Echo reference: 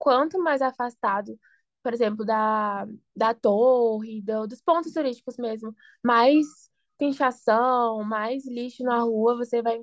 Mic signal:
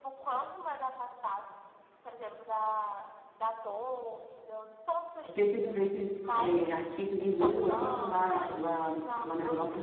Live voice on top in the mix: Yes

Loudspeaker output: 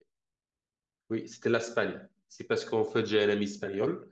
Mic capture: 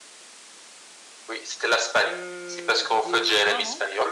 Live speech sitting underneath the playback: Yes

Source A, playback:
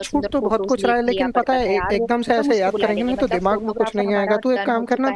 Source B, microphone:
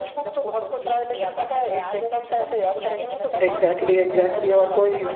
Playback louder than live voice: No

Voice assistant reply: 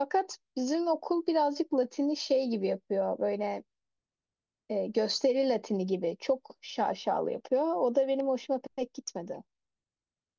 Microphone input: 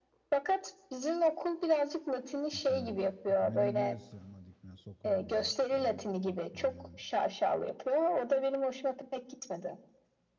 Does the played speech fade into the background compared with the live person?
No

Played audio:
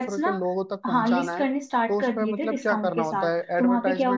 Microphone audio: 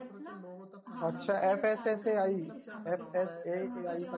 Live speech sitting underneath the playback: No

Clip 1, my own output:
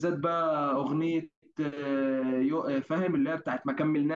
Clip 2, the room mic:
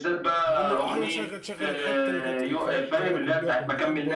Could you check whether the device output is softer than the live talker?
No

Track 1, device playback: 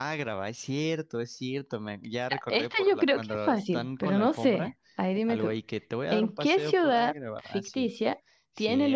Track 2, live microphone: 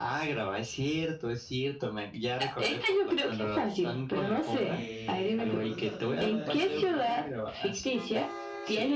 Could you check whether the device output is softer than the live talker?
No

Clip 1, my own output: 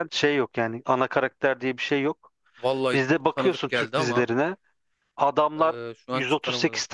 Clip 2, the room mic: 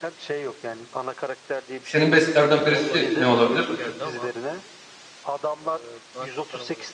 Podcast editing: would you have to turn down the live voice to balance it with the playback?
Yes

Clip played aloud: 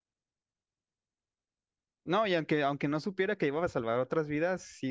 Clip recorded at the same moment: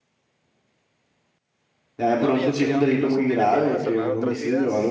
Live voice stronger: Yes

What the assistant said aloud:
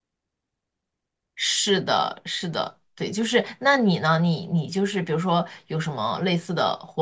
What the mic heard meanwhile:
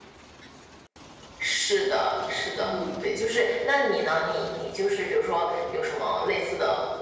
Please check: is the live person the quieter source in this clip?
Yes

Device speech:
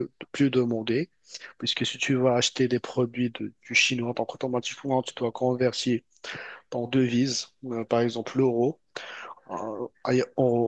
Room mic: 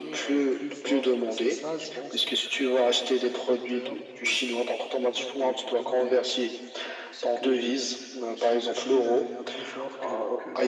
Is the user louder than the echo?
No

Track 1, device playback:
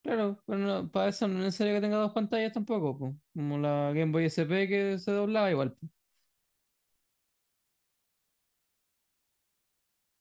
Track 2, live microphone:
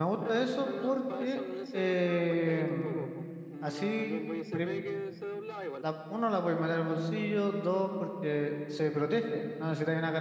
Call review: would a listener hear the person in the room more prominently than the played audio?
Yes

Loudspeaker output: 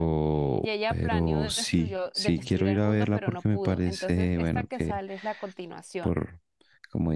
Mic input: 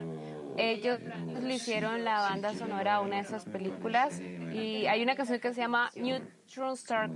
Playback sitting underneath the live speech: Yes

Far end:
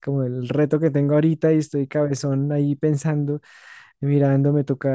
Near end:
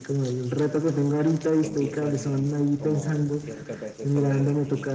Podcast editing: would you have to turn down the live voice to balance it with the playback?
No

